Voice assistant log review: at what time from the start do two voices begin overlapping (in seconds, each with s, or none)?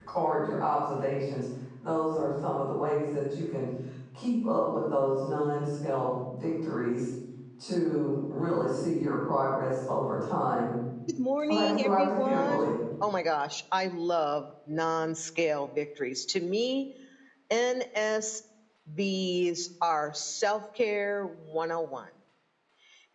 11.5 s